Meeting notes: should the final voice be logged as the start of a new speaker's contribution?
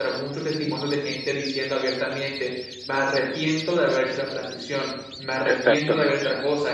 No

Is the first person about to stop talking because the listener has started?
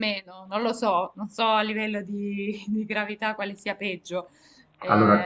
Yes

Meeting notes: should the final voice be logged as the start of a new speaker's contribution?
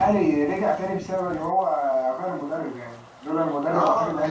Yes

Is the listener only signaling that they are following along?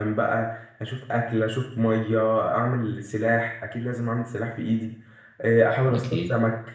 Yes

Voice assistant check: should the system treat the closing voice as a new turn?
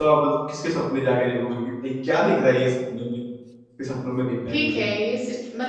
Yes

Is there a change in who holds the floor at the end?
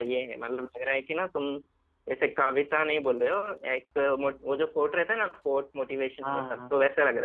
Yes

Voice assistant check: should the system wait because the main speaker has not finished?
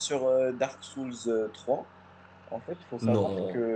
Yes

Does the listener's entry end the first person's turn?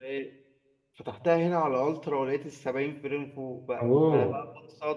No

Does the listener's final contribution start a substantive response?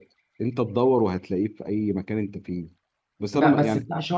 Yes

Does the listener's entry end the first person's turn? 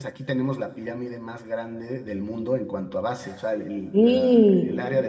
No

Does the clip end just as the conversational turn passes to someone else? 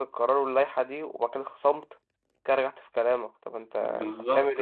Yes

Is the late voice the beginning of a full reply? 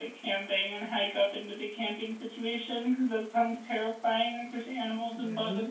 Yes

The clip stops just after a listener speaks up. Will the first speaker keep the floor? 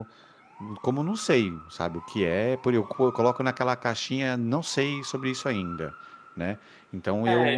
No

